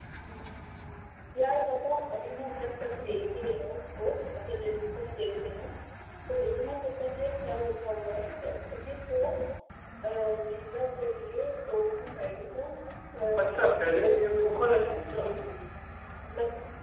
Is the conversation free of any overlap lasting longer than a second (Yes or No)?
No